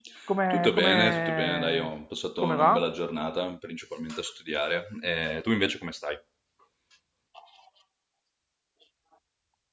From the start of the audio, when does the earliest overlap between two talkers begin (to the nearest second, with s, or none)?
1 s